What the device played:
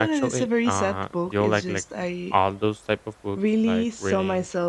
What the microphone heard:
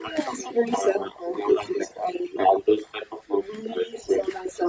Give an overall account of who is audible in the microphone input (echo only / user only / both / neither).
echo only